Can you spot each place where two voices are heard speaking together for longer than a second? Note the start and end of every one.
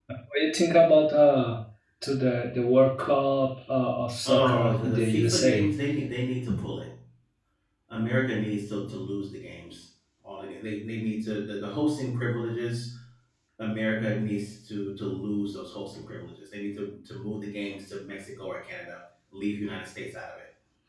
4.3-5.7

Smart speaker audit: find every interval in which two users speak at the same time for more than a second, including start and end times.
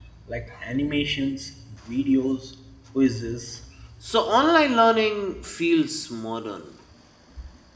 none

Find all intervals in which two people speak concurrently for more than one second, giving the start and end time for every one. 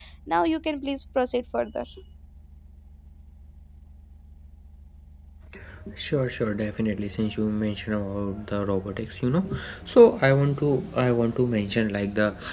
none

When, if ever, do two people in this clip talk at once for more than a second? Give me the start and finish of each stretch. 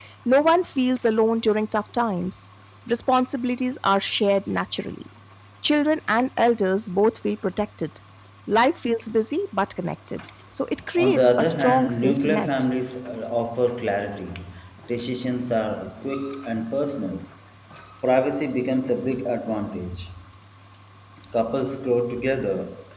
11.0-12.5

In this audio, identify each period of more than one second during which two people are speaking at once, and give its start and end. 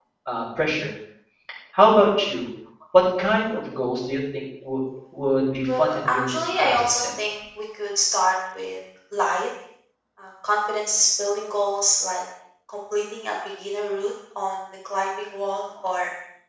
5.8-7.0

